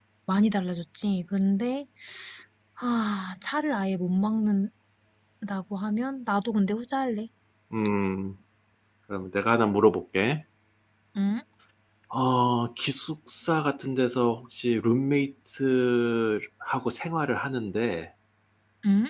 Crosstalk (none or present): none